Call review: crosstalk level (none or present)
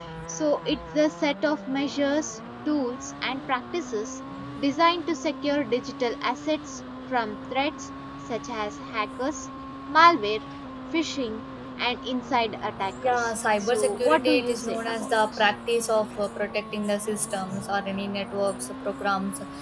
present